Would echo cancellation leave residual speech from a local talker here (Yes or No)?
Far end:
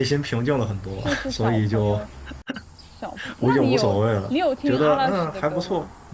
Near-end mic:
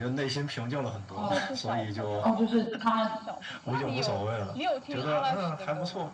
Yes